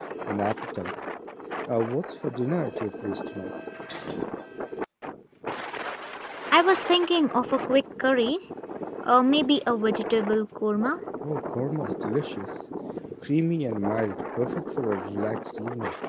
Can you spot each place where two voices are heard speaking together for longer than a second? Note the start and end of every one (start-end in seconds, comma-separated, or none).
none